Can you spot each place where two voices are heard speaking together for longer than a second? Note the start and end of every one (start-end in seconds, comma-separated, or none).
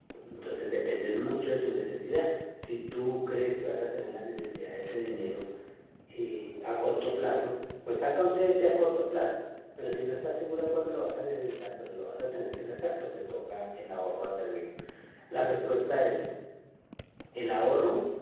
none